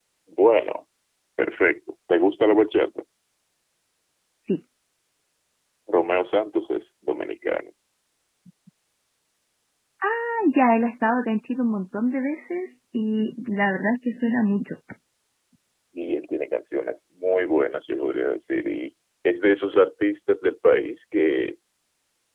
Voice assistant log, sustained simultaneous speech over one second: none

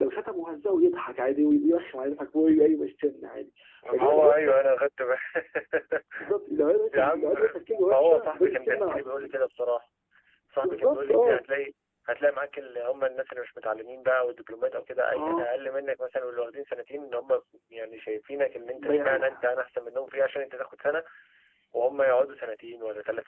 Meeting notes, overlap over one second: present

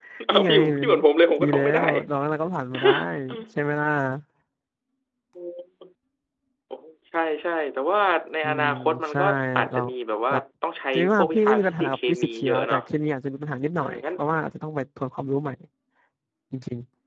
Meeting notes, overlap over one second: present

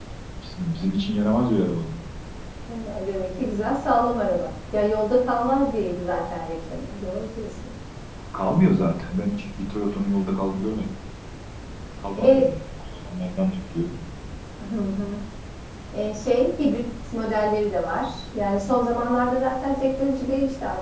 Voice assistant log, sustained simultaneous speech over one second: none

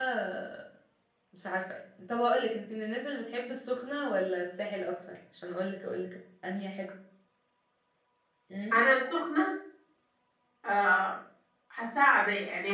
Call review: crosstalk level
none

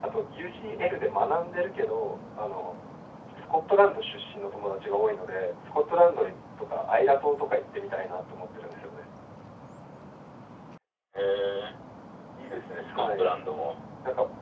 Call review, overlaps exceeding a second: none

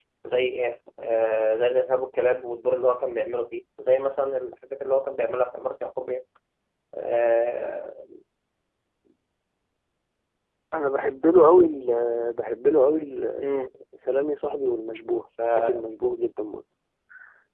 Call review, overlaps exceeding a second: none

